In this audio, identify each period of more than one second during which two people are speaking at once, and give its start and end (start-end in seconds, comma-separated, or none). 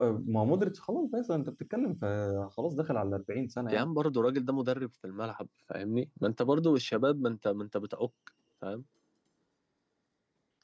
none